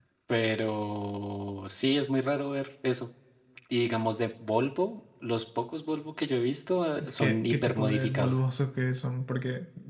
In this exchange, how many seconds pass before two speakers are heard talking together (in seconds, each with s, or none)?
7.0 s